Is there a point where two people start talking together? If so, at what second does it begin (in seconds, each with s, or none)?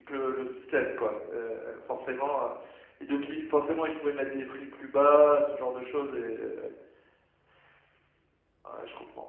none